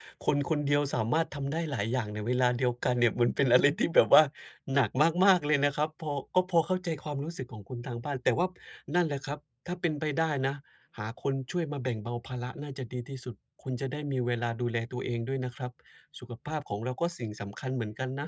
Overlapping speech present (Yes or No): No